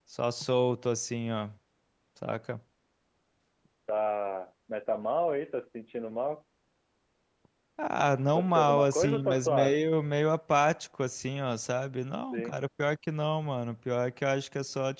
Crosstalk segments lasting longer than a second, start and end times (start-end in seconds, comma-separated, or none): 8.3-9.8